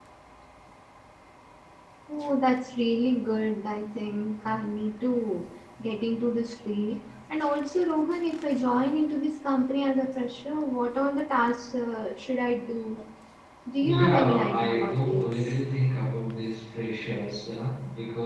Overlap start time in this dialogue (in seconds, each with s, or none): 13.9 s